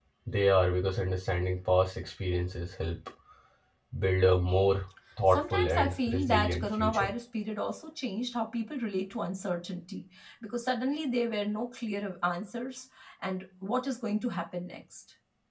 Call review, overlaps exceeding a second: present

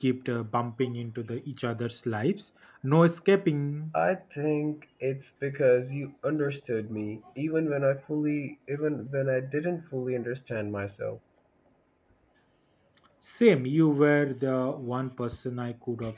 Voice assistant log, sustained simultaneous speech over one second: none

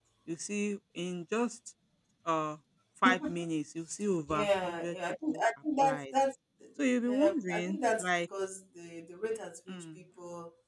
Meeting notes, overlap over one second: present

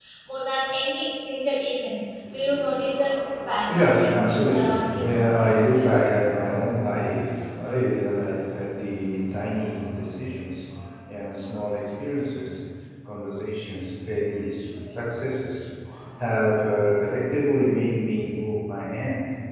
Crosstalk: present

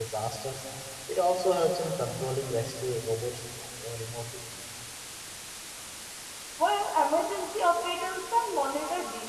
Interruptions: none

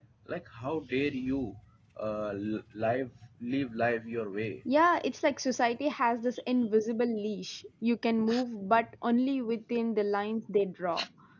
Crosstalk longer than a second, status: none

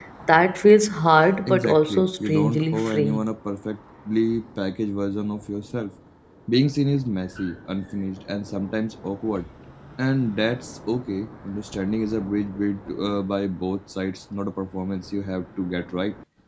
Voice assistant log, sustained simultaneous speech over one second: present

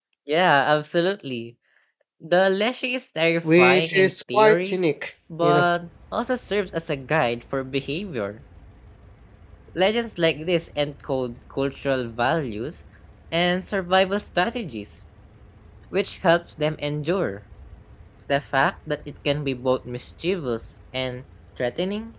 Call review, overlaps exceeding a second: present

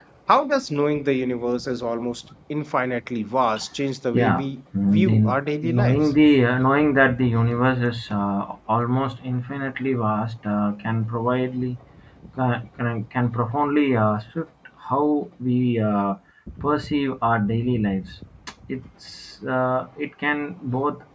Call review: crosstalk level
present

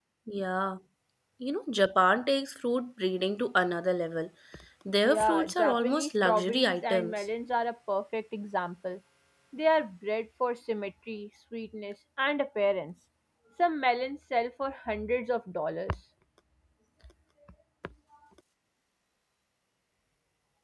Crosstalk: present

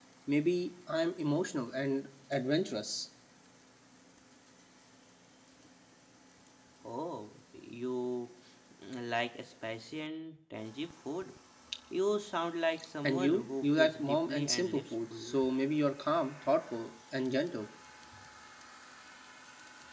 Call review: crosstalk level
present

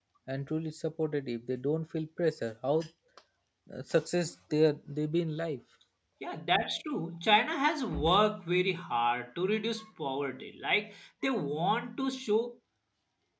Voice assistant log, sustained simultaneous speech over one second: none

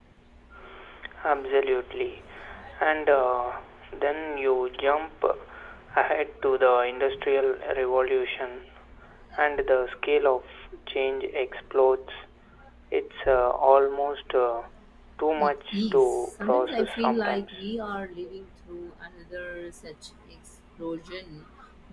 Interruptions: present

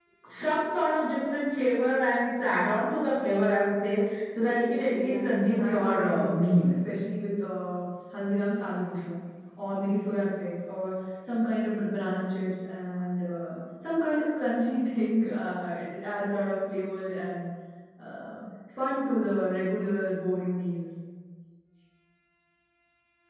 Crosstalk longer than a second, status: present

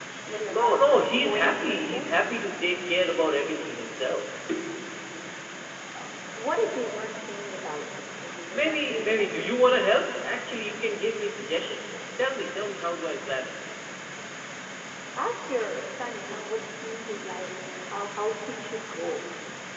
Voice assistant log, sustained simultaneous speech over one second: present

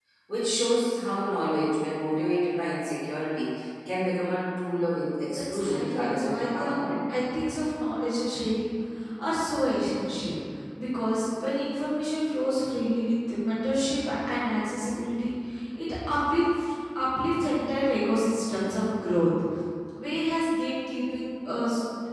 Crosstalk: present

